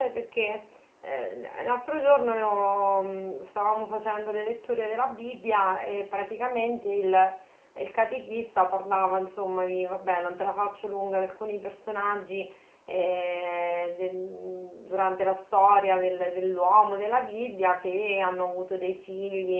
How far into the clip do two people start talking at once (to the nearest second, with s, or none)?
none